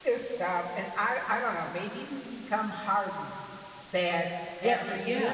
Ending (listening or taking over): listening